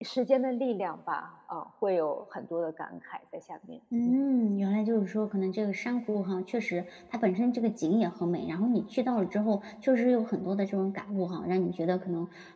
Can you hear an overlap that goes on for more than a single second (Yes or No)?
No